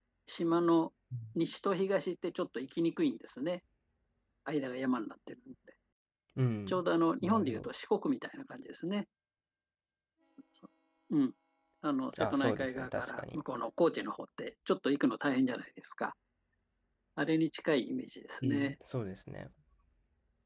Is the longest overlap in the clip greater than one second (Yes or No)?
Yes